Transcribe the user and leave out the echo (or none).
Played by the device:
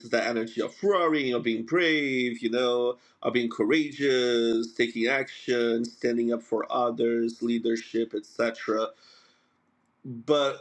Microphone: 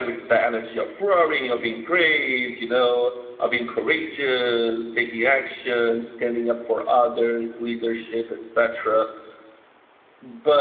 none